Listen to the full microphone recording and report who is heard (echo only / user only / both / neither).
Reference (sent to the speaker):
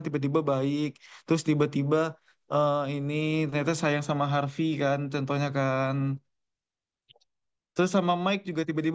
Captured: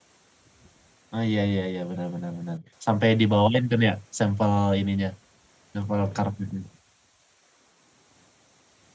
user only